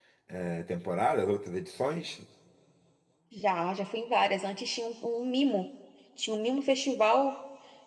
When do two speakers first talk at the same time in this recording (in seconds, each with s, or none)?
none